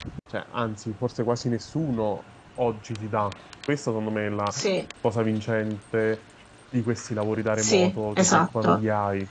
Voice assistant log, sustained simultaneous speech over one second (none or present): present